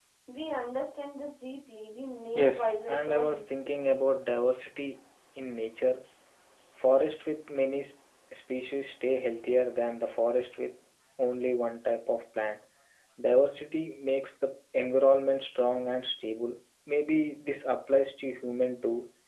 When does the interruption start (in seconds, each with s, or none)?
2.3 s